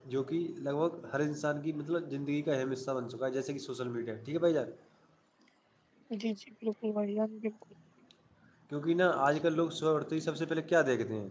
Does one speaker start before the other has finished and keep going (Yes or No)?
No